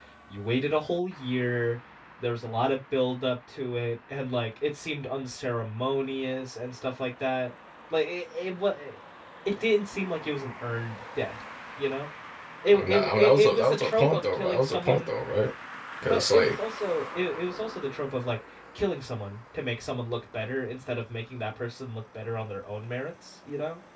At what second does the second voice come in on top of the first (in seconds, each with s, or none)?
12.7 s